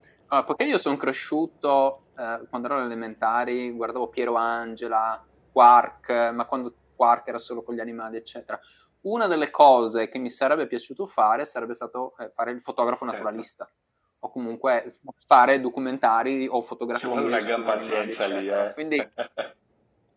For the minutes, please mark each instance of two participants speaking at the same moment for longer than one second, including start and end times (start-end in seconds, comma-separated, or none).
17.0-18.7